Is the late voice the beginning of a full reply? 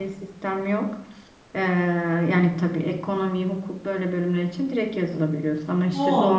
No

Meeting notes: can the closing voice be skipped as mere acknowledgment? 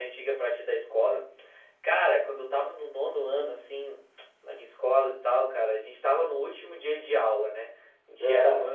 Yes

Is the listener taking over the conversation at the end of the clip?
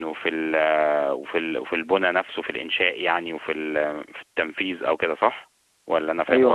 Yes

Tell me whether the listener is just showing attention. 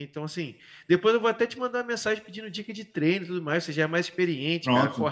Yes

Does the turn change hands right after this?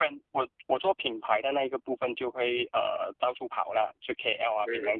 Yes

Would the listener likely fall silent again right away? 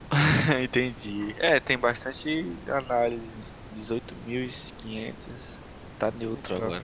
Yes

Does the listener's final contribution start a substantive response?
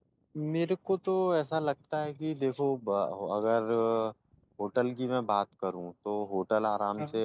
No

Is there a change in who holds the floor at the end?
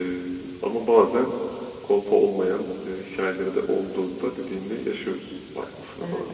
Yes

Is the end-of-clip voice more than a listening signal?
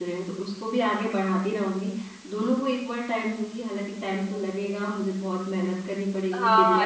Yes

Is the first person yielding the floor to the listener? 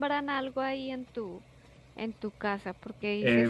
No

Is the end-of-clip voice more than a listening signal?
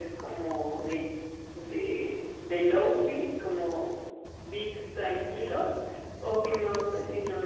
No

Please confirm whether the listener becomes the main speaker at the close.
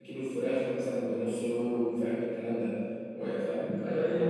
No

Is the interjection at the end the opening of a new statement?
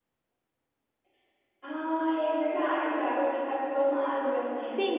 Yes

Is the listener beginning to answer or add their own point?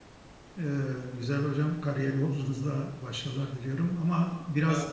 No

